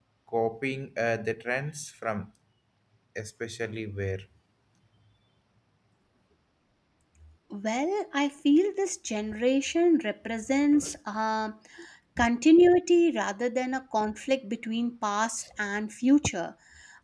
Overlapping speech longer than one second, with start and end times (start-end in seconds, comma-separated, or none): none